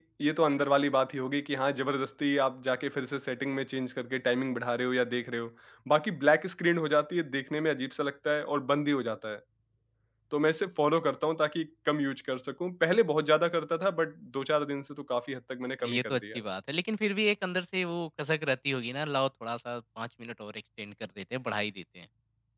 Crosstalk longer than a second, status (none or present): none